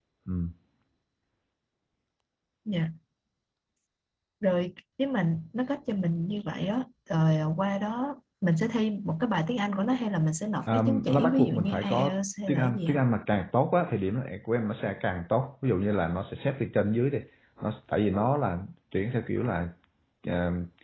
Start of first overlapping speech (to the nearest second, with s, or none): 11 s